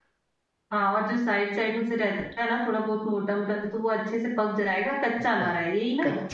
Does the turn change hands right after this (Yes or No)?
Yes